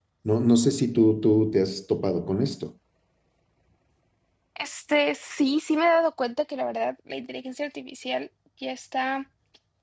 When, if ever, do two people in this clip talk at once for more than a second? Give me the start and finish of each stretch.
none

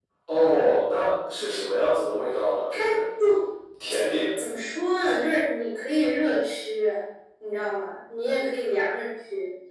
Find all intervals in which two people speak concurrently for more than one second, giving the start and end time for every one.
none

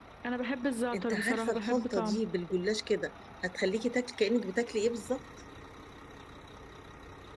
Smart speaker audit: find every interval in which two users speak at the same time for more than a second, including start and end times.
0.9-2.2

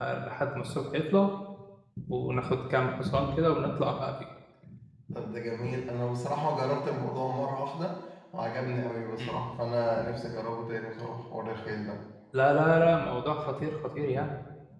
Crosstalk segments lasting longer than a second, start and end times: none

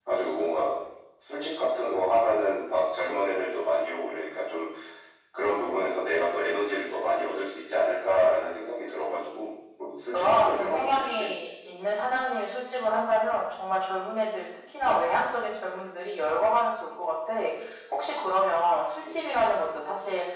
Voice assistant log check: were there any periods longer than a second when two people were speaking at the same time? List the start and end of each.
10.1-11.3

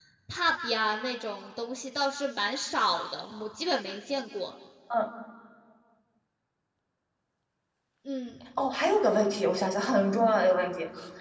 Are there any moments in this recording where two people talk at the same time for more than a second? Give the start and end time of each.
none

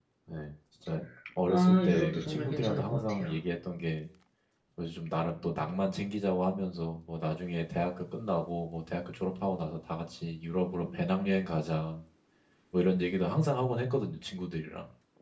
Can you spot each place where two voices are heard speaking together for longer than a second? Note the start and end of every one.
1.5-3.3

